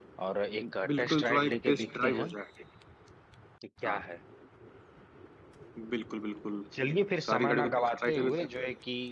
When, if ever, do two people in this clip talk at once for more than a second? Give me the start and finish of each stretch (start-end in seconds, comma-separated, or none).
0.9-2.3, 7.2-8.5